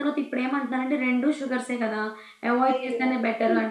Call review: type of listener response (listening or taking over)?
taking over